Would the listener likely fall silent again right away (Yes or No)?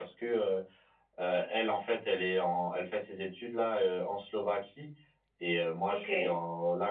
Yes